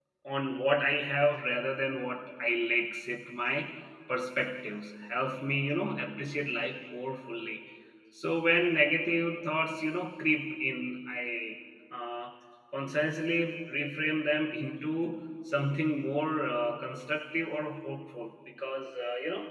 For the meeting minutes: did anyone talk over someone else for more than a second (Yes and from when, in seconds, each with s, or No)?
No